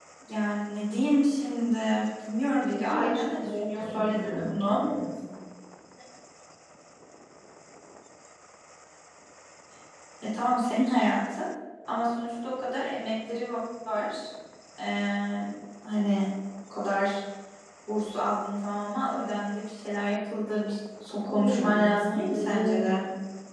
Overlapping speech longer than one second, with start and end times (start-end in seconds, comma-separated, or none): 2.6-4.8, 21.3-23.0